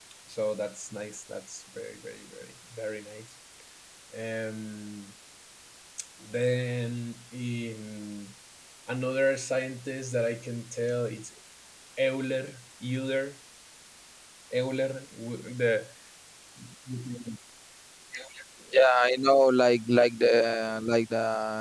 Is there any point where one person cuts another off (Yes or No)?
No